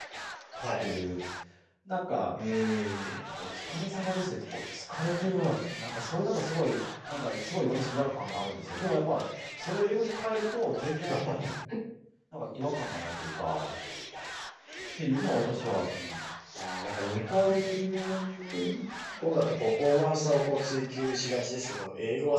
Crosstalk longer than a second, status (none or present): none